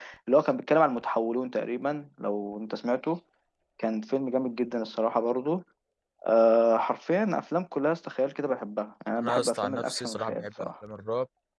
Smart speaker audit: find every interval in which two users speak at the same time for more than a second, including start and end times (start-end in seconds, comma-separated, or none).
9.2-10.7